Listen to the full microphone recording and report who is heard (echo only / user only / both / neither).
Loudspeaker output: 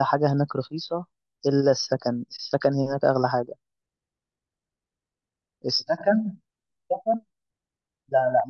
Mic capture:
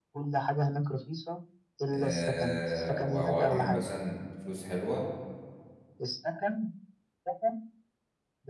both